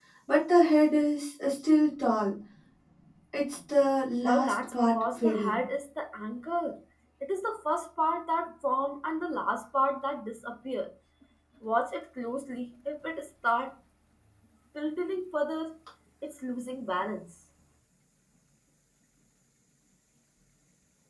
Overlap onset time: 4.2 s

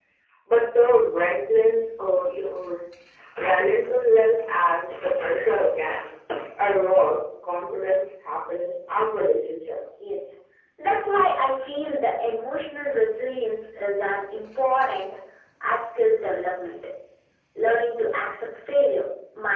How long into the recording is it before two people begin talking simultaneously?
none

